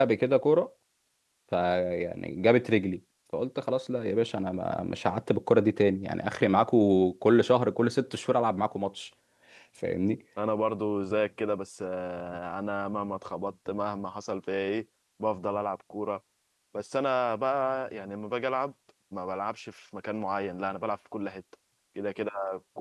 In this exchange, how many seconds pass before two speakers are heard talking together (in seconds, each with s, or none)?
none